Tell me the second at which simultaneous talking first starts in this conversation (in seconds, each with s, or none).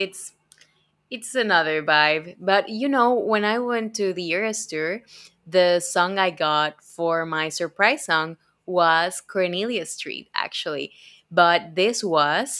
none